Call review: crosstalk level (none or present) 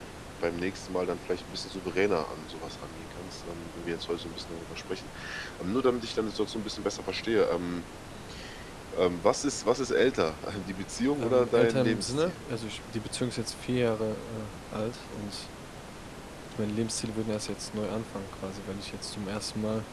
present